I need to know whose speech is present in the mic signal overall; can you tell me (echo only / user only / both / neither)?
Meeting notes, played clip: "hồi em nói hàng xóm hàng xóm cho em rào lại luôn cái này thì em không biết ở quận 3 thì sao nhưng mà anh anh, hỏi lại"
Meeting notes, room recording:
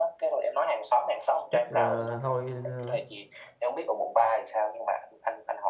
both